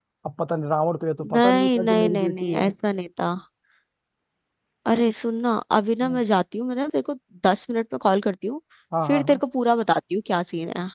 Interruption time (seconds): 1.4 s

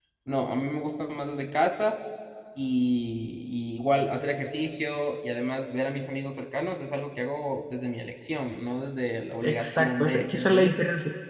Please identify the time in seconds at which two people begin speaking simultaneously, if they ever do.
9.4 s

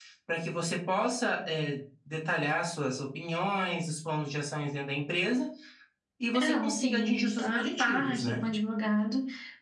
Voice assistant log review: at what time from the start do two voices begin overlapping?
6.3 s

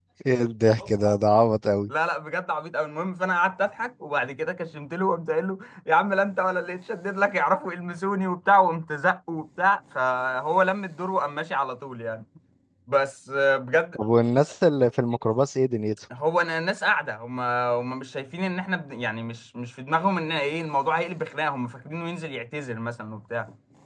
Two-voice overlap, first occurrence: none

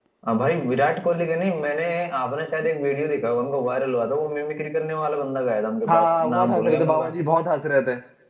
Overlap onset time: 5.9 s

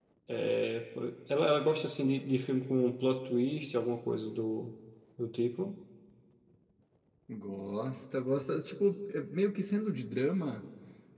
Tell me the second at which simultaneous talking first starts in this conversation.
none

